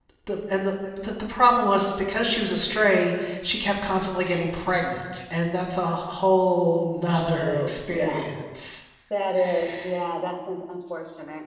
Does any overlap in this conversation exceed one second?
Yes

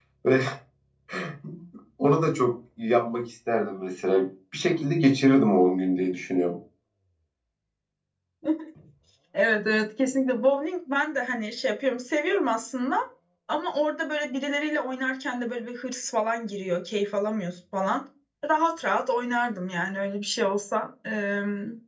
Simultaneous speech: No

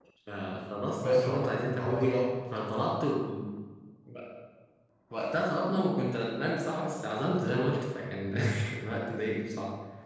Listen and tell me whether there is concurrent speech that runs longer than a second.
Yes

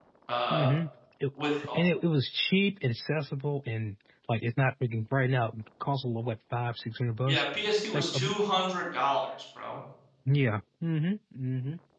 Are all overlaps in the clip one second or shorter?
Yes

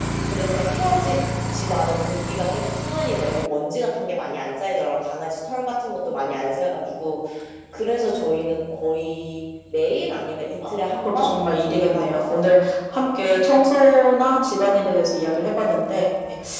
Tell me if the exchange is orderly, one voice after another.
No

